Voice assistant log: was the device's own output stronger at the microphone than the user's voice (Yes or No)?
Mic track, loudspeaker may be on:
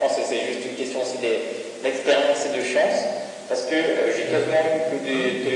Yes